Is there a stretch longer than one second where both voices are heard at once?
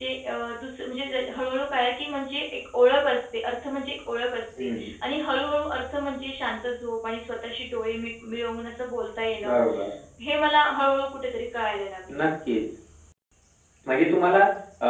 No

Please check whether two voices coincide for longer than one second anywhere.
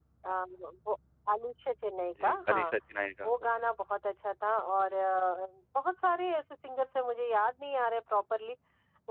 No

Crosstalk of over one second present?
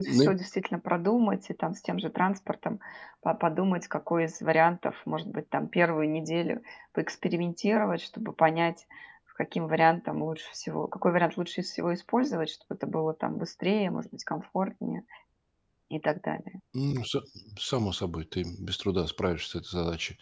No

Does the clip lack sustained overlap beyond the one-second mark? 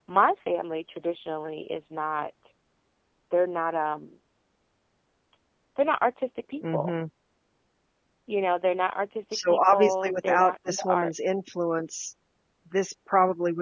No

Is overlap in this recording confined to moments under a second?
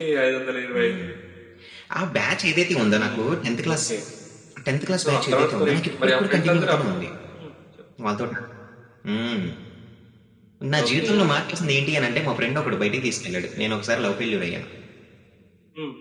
No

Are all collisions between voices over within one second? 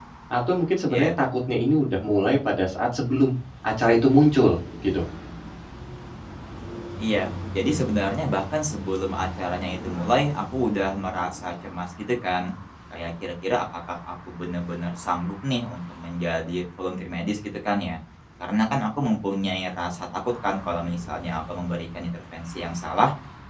Yes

